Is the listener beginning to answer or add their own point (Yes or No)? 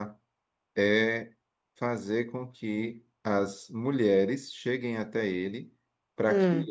No